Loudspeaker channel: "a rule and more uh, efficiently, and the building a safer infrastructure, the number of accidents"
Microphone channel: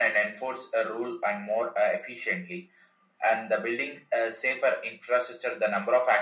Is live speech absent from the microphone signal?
Yes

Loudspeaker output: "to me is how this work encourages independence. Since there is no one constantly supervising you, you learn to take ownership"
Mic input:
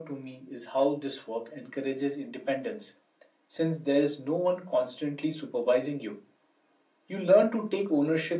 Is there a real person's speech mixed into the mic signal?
No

